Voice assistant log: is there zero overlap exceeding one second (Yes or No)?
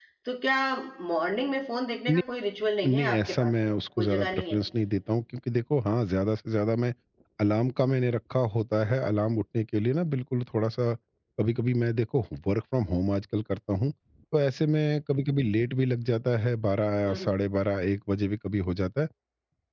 No